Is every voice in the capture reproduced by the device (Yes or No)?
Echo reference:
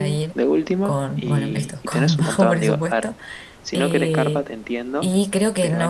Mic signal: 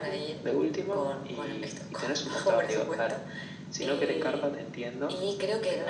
Yes